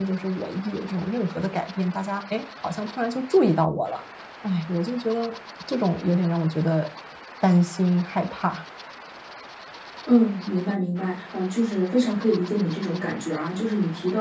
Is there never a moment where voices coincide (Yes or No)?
Yes